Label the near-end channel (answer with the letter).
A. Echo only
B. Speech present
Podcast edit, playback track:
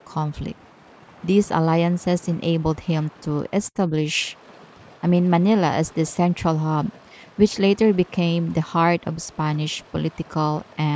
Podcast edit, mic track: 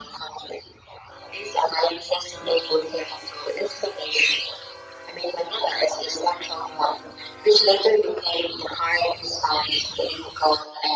A